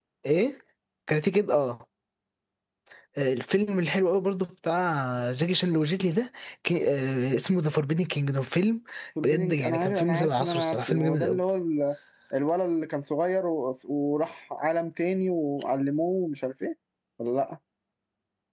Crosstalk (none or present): present